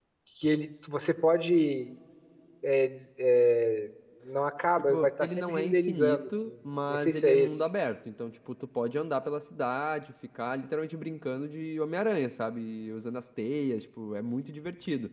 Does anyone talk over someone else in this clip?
Yes, from 4.8 s

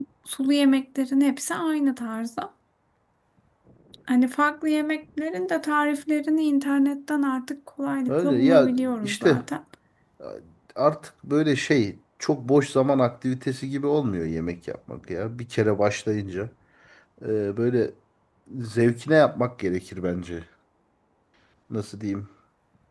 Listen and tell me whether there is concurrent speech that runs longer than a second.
Yes, from 8.1 s

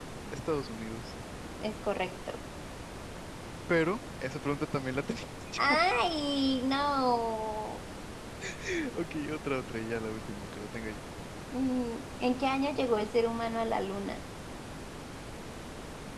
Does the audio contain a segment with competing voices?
No

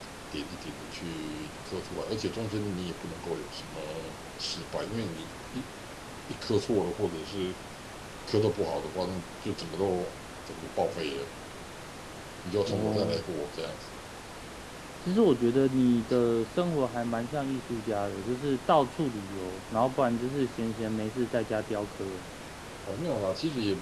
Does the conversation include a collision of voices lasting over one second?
No

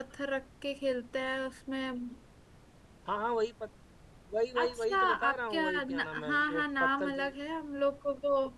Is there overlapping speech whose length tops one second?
Yes, from 4.6 s

